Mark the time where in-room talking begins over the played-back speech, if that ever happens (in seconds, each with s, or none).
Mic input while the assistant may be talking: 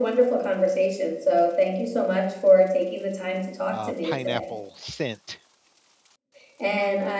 3.7 s